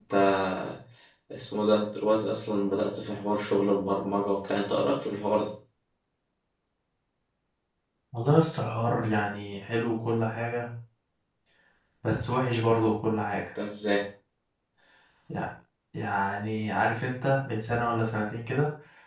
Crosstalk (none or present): none